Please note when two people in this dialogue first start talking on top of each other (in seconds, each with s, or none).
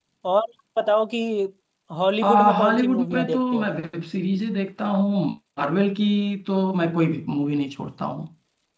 2.2 s